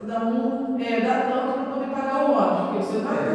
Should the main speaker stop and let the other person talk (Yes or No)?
Yes